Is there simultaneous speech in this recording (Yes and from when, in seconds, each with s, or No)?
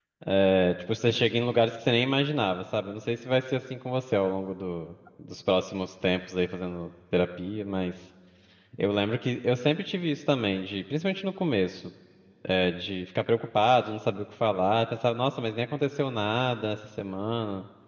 No